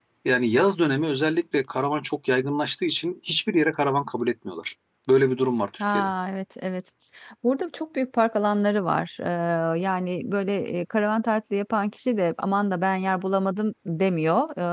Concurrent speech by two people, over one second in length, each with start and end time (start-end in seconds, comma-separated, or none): none